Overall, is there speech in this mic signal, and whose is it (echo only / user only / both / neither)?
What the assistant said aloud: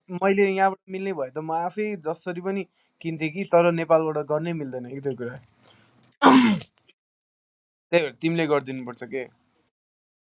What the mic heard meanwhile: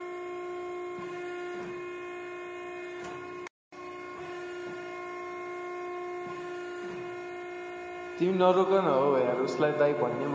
user only